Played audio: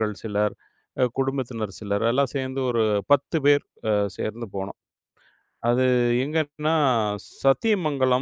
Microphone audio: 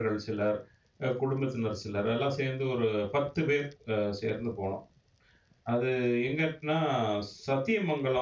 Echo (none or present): present